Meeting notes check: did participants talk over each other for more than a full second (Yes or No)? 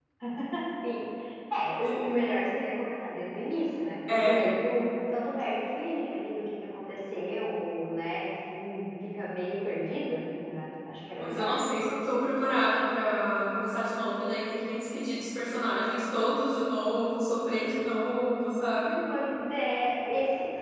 No